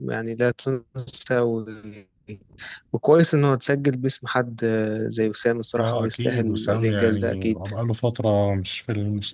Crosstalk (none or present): present